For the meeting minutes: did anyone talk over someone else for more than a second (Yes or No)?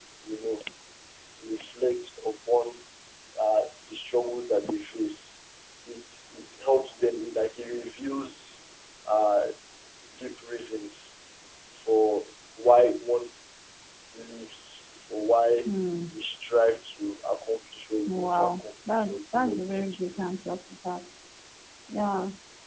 Yes